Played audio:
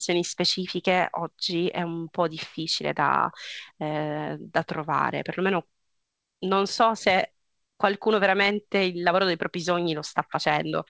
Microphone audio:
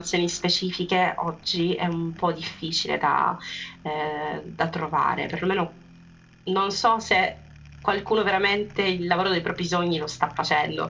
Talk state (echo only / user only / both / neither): echo only